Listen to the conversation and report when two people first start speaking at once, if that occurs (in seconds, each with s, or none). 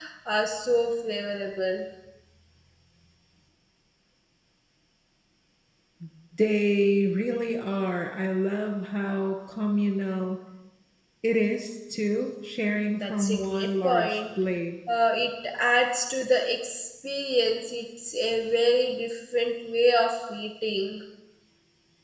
12.9 s